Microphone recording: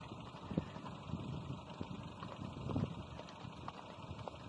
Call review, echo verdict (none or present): none